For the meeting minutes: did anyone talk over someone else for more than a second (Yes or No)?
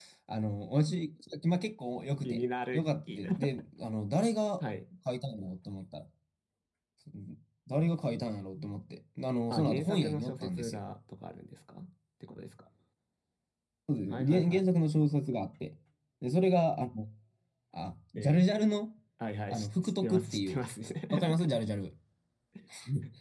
Yes